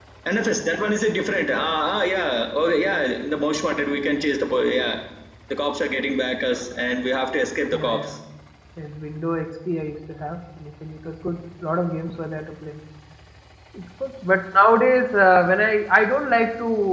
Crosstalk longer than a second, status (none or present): none